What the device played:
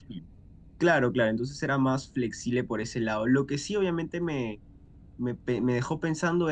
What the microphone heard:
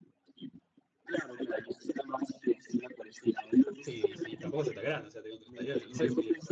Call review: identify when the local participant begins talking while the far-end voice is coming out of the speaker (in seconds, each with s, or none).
3.8 s